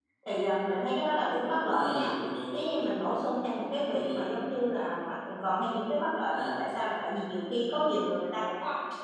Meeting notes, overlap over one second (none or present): none